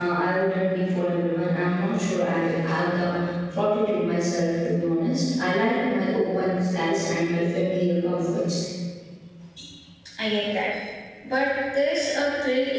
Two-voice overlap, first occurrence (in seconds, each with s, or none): none